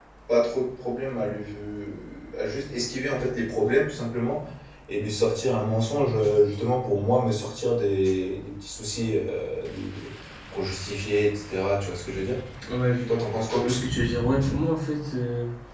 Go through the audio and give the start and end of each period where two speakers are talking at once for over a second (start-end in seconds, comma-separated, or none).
none